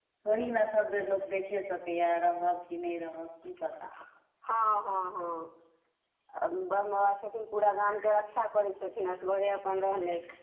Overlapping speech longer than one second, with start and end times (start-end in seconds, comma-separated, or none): none